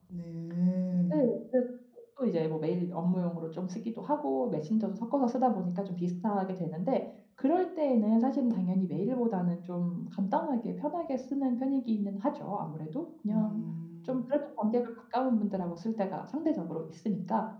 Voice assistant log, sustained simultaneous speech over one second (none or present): none